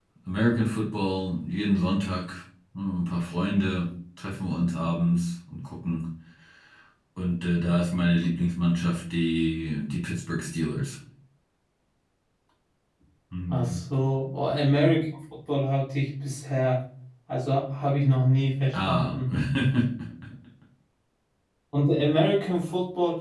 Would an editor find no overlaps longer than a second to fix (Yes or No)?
Yes